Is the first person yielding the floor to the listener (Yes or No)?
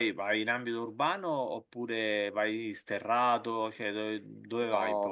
Yes